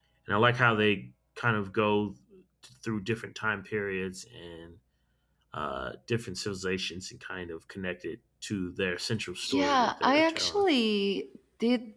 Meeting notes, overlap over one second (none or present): present